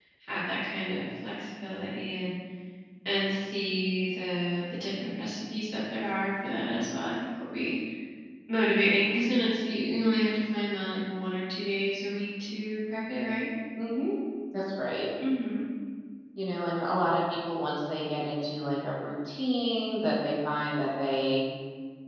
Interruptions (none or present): none